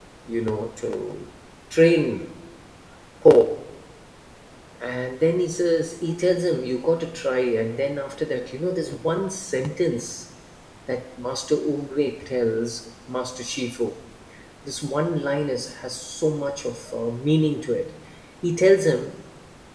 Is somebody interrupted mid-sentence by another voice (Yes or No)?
No